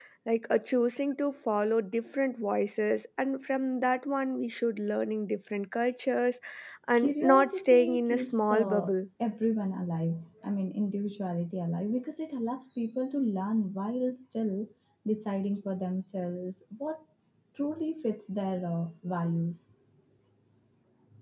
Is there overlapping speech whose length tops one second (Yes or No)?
Yes